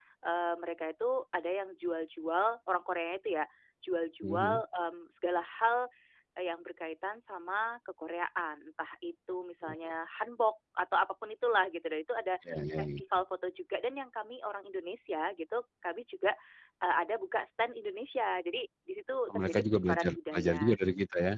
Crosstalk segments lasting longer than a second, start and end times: 19.3-20.8

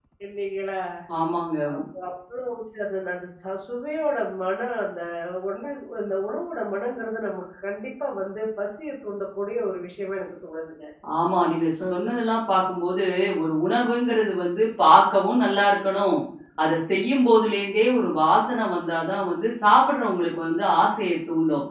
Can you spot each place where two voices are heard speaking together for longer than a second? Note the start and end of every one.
none

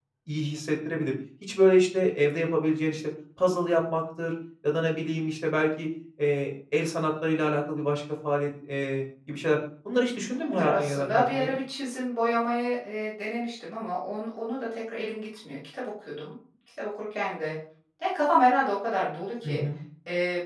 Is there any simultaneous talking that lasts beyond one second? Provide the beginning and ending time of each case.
10.3-11.6

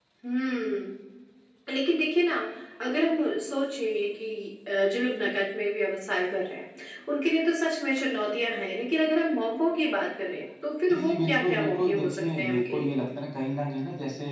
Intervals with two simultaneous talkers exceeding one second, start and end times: 10.9-13.0

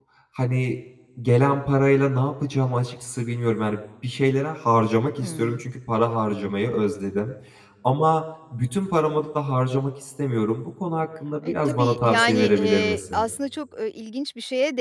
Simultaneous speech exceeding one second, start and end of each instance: 11.4-13.3

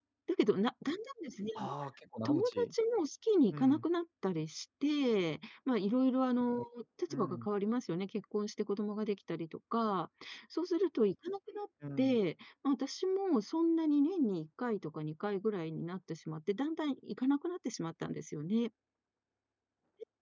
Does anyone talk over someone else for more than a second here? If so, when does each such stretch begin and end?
none

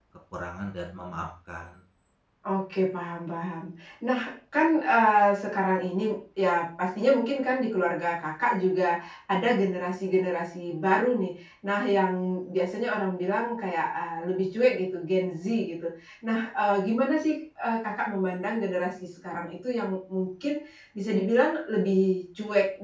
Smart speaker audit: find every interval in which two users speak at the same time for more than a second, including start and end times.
none

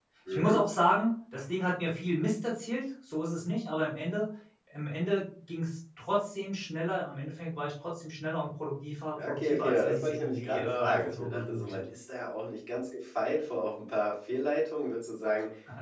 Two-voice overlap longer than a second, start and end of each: 9.3-11.8

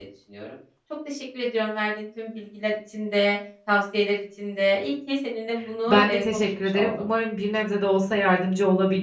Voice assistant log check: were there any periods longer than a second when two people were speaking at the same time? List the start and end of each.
5.9-7.1

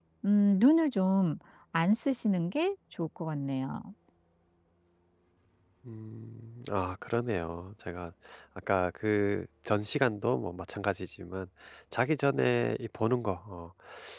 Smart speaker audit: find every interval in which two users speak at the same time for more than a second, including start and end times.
none

